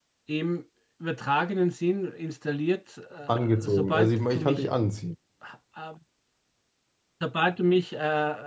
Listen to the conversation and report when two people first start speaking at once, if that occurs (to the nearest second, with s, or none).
3 s